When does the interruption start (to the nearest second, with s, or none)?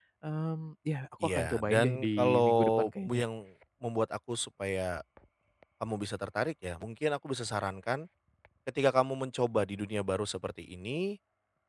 1 s